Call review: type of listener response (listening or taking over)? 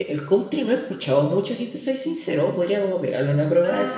taking over